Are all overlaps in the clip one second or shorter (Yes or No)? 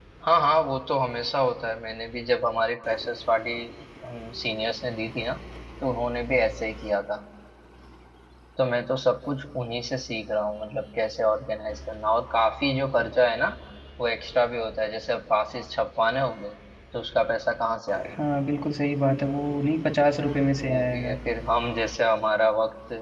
Yes